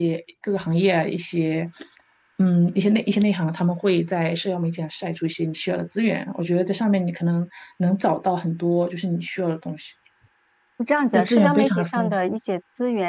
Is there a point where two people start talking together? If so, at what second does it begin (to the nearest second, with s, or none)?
11 s